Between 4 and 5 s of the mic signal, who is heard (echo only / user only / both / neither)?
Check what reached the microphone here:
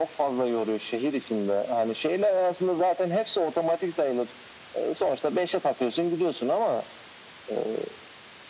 echo only